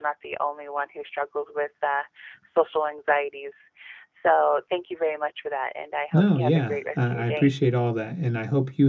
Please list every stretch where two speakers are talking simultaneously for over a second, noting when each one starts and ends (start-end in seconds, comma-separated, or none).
6.1-7.6